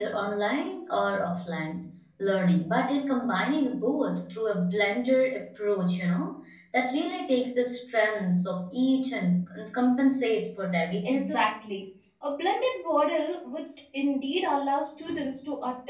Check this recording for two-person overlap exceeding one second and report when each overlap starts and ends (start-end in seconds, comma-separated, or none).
none